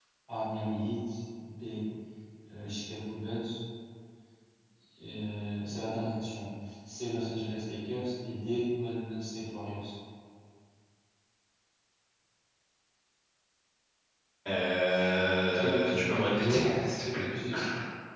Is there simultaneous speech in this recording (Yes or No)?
Yes